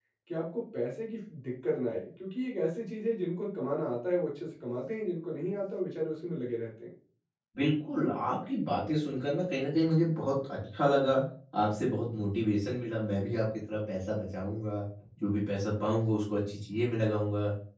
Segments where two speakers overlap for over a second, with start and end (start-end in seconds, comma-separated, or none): none